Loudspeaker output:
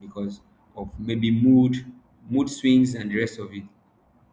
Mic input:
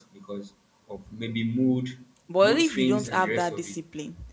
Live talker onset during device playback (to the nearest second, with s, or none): 2 s